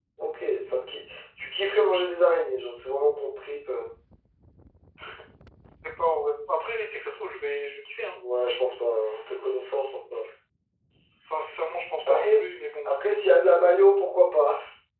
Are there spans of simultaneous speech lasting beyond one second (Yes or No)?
No